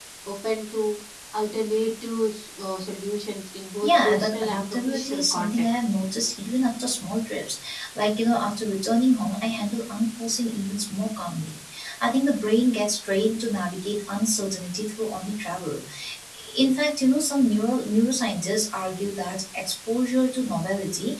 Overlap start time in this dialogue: 3.8 s

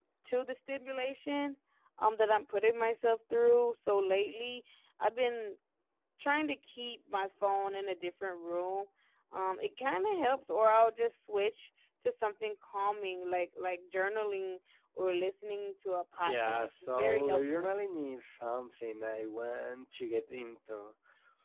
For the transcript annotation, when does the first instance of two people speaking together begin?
16.3 s

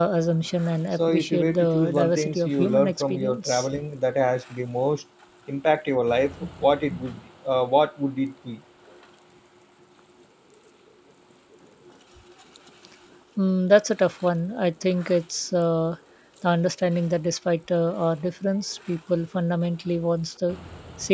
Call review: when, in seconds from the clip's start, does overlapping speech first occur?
0.9 s

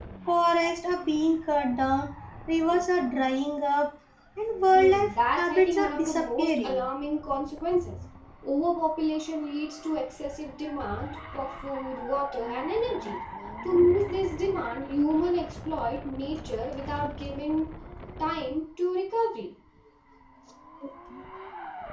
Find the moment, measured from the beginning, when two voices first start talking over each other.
4.8 s

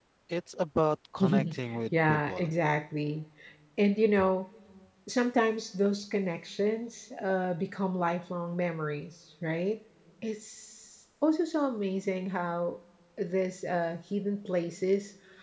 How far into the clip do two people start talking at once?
1.2 s

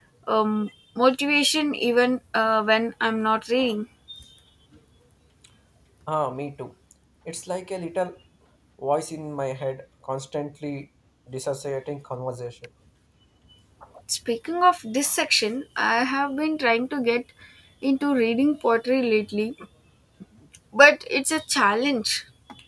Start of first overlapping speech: none

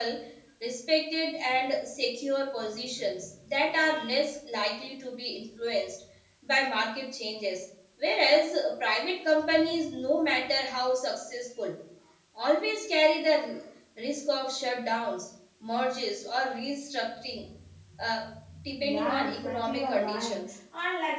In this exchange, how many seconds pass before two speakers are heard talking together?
18.9 s

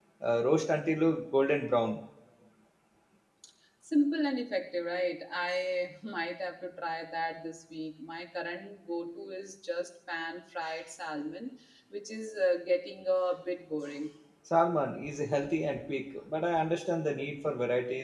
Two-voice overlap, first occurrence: none

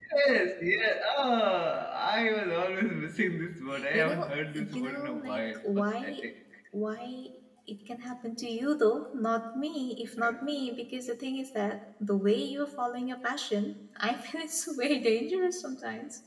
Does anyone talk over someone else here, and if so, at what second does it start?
3.9 s

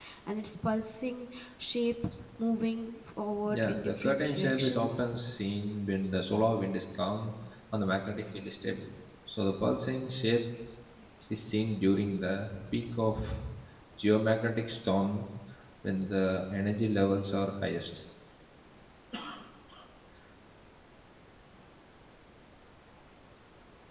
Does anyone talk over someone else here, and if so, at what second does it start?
3.5 s

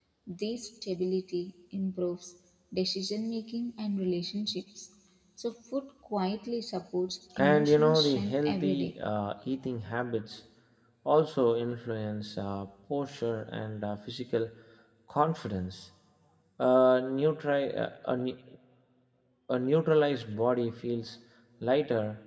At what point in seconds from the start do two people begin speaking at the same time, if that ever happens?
7.4 s

